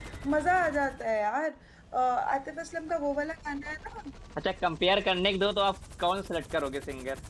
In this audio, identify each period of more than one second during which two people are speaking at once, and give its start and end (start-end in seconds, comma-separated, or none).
none